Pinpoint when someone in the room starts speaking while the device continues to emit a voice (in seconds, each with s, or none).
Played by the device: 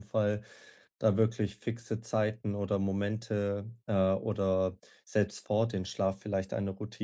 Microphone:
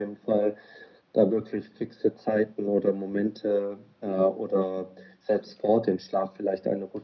none